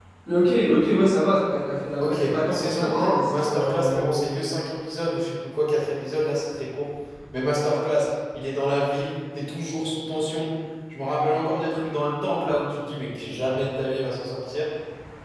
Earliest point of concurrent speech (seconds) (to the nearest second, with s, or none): 2 s